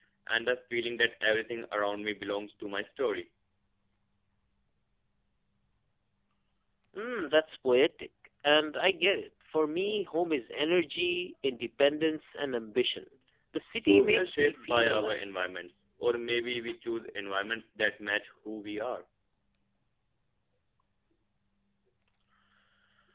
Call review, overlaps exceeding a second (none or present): present